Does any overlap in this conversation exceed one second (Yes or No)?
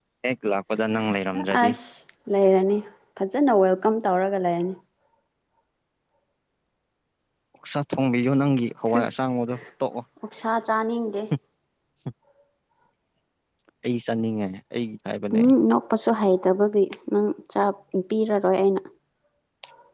No